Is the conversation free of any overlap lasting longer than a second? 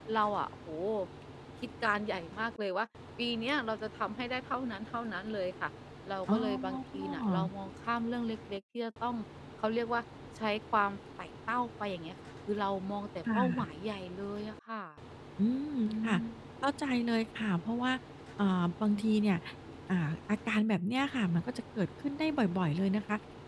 No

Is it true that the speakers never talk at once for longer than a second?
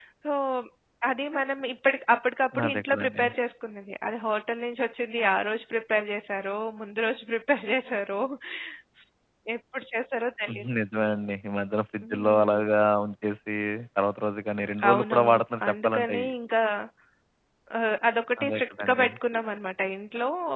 No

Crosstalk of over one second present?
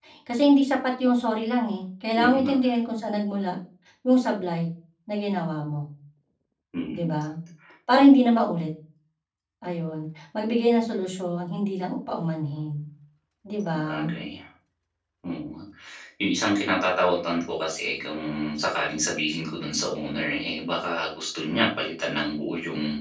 No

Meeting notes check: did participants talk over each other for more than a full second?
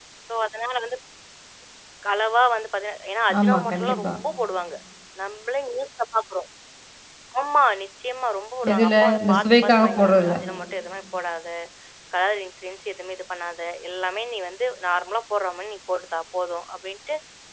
Yes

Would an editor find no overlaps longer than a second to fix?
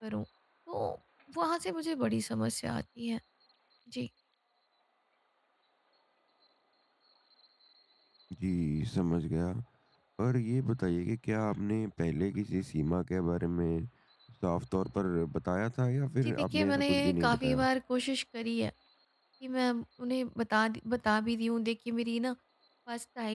No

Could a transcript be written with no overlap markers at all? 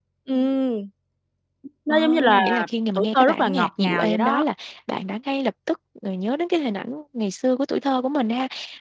No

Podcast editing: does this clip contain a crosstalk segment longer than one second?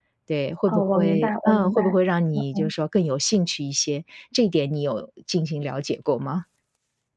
Yes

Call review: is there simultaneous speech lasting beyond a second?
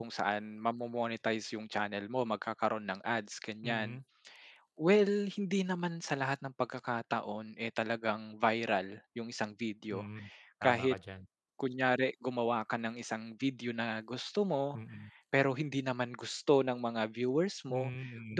No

